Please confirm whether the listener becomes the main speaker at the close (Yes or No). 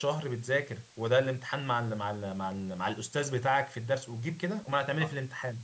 Yes